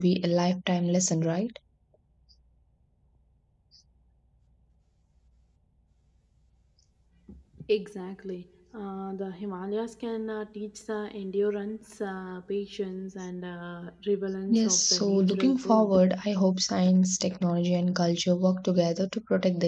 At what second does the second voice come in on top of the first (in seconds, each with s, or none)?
14.5 s